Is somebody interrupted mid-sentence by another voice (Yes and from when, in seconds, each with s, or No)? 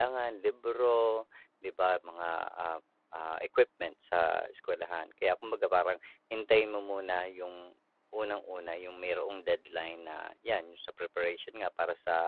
No